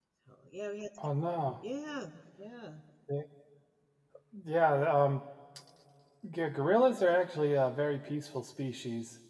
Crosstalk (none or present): none